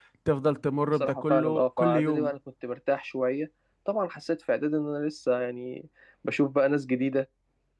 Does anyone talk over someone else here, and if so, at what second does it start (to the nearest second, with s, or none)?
1 s